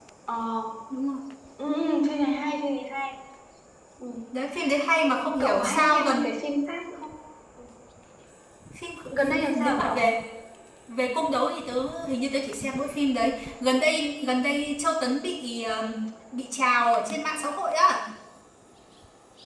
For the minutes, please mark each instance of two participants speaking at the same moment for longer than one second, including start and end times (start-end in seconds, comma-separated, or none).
5.0-6.3